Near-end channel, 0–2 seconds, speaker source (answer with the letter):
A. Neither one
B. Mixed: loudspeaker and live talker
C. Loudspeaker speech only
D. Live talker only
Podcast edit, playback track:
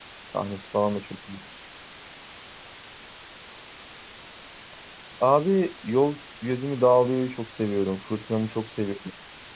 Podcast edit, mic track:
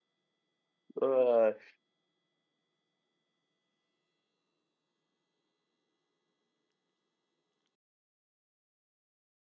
D